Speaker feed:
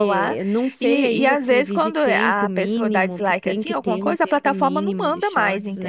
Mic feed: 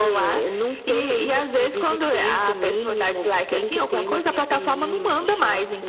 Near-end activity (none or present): none